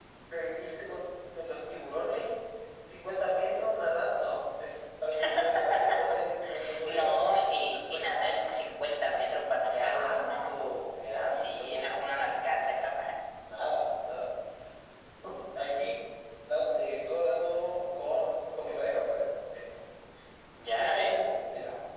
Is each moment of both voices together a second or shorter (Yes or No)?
No